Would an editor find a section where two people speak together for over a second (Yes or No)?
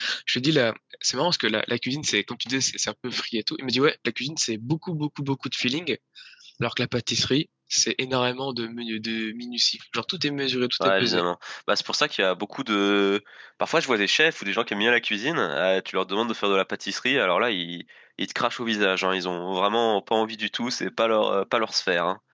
No